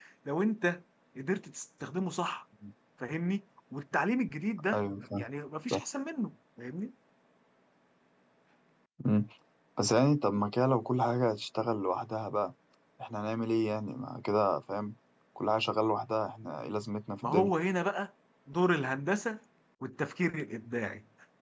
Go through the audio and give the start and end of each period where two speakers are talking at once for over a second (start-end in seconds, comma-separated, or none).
none